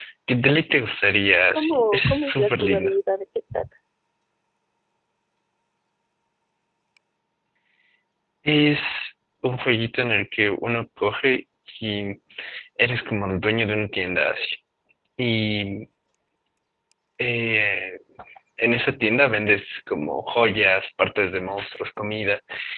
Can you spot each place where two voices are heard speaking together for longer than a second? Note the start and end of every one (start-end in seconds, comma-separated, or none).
1.5-2.9